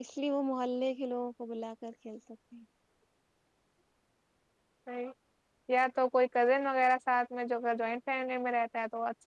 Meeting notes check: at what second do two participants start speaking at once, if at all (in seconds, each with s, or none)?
none